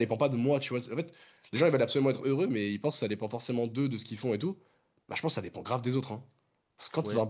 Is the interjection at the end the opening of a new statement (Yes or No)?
No